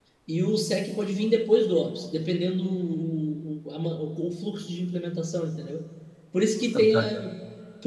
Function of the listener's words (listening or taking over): listening